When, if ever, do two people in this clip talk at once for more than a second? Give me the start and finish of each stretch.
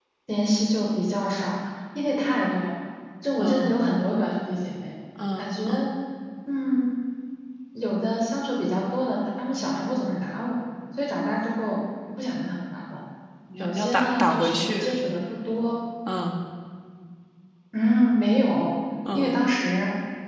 13.5-14.9

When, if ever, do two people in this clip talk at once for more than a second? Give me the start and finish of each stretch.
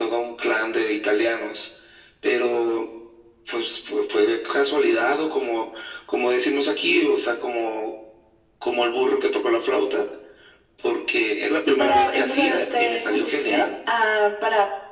11.8-13.7

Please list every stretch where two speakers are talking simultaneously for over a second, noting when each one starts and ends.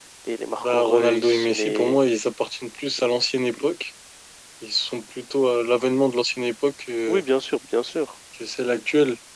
0.6-2.0

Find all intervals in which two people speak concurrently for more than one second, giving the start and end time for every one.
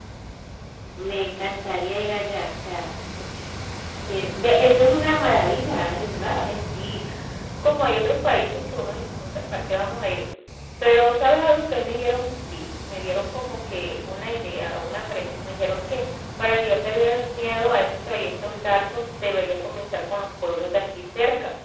none

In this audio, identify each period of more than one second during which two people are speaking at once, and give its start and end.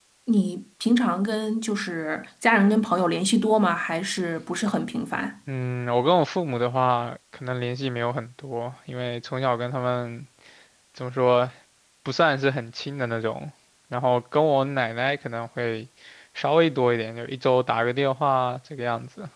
none

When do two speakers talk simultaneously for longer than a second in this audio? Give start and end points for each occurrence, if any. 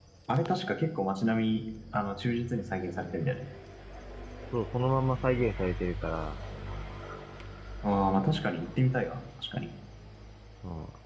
none

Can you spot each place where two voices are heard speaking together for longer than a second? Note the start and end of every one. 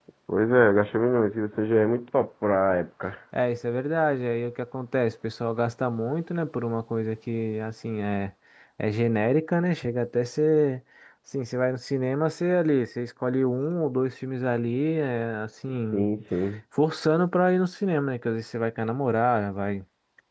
none

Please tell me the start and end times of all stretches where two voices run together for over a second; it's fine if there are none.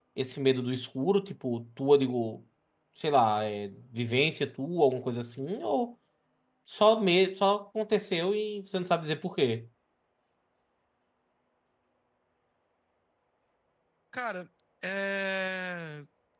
none

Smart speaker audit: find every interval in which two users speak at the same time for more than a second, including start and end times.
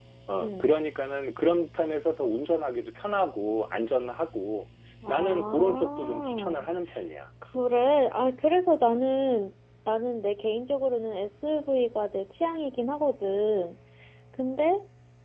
5.1-6.7

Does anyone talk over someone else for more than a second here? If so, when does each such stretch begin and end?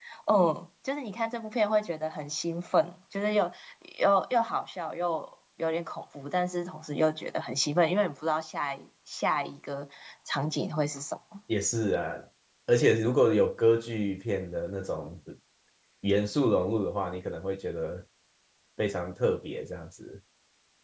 none

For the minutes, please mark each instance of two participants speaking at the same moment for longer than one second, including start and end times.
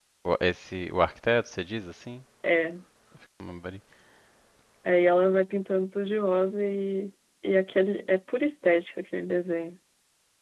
none

